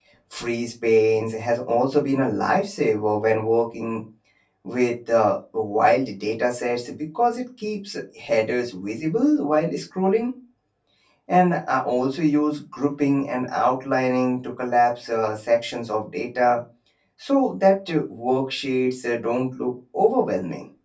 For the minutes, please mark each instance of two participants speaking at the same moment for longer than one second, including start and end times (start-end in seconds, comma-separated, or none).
none